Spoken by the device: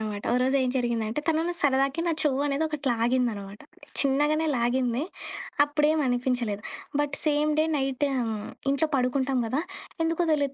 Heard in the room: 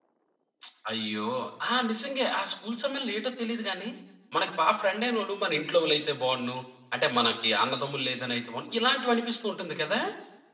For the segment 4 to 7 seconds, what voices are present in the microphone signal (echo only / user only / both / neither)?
user only